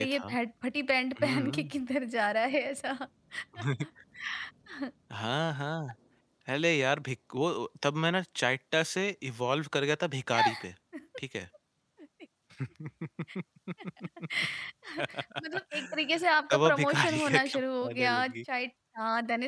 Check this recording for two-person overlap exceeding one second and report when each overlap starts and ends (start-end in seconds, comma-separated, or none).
16.5-18.3